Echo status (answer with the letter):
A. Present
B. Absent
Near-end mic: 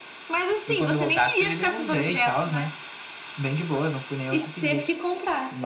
A